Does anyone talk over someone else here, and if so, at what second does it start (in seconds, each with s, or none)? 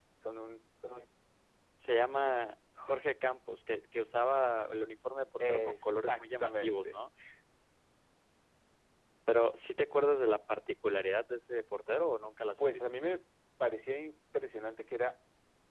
5.4 s